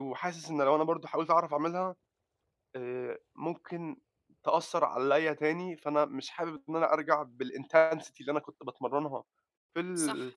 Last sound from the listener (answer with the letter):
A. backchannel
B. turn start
A